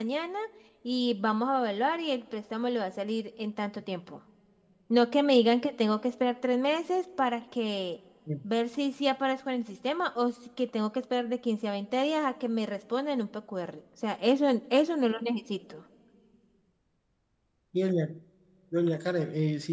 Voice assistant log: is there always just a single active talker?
Yes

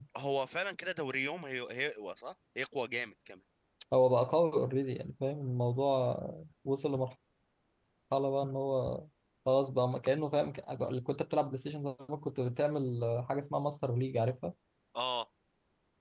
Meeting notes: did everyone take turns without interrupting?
Yes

